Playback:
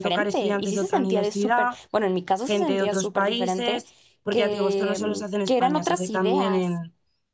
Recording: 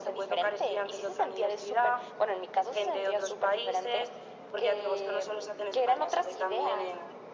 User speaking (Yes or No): No